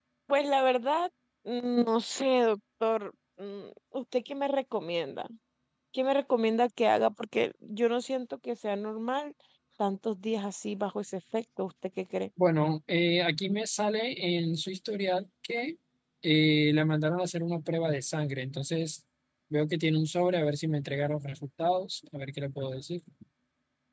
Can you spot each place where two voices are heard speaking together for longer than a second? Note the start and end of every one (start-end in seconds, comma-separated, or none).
none